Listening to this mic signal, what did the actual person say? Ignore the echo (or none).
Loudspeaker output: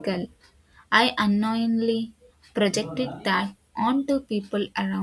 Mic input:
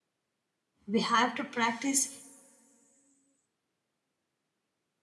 we have to practice